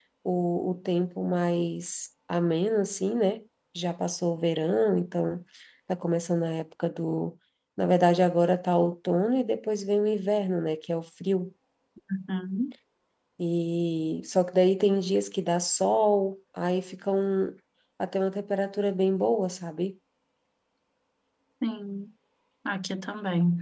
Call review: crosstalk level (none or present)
none